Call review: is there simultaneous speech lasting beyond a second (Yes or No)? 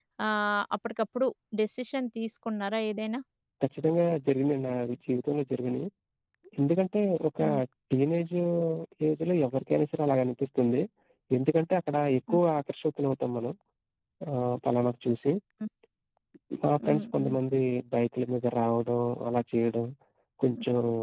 No